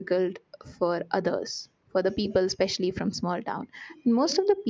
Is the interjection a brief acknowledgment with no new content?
Yes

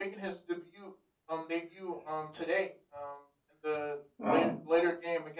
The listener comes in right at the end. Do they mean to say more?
No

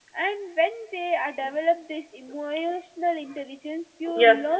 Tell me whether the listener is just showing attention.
Yes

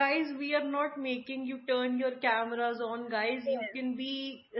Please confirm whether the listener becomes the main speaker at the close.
No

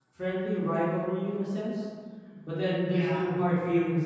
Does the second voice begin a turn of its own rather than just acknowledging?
No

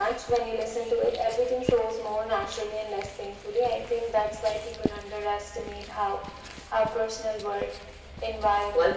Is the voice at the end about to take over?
Yes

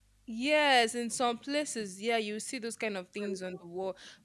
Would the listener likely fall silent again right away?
Yes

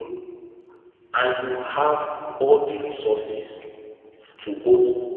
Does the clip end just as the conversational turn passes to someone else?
No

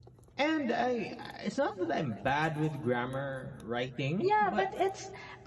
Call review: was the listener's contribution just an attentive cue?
No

